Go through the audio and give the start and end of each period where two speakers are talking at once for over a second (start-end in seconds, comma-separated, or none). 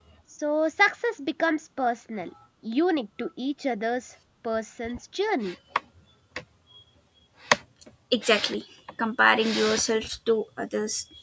none